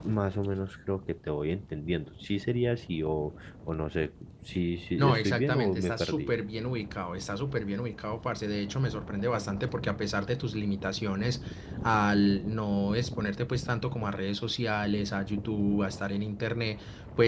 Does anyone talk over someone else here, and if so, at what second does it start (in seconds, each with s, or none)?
5.0 s